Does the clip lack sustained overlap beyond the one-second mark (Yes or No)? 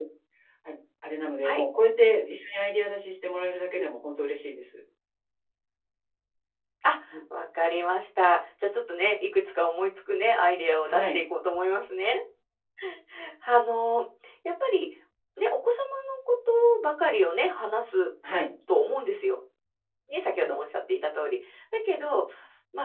Yes